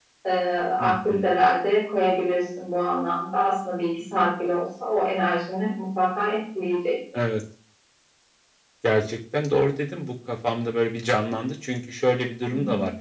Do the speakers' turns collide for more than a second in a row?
No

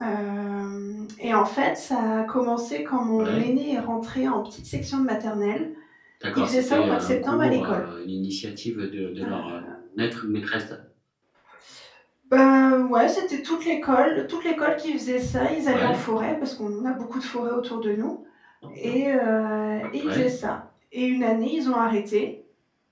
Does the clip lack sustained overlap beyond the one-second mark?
No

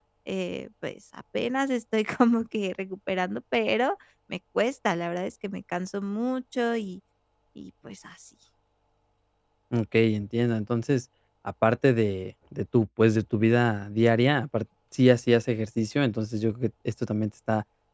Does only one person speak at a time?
Yes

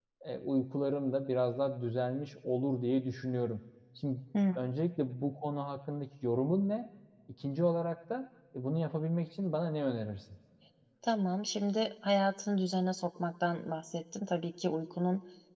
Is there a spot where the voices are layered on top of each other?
No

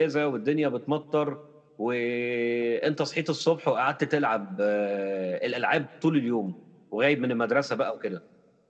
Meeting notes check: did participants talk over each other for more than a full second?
No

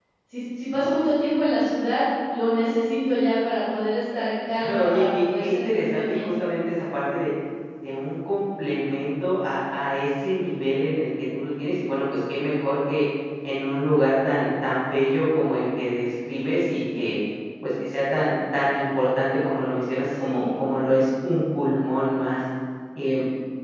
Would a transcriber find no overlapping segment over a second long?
No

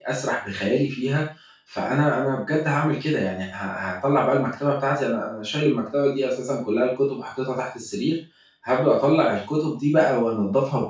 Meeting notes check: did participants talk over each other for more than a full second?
No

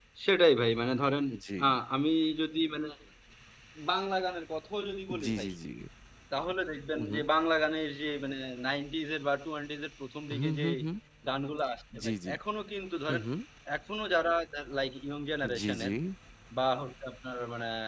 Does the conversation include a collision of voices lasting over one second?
No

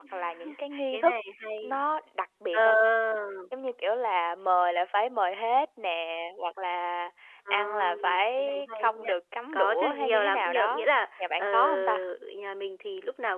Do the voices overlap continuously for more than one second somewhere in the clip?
Yes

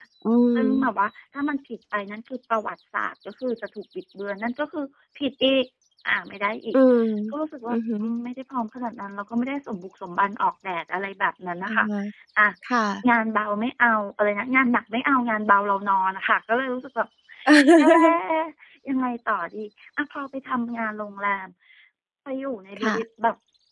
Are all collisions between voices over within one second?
Yes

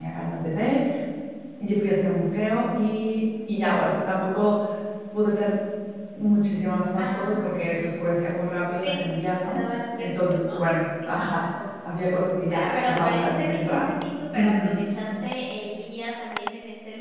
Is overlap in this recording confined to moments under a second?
No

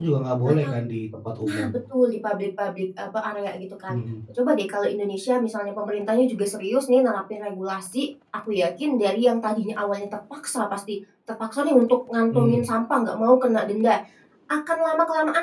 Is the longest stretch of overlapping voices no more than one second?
Yes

